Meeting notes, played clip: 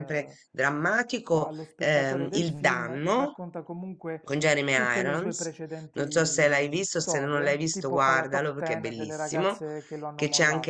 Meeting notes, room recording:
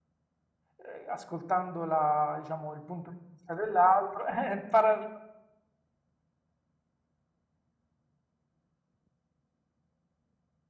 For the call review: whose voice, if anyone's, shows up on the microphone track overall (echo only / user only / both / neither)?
user only